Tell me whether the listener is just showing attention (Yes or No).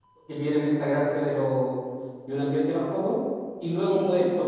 Yes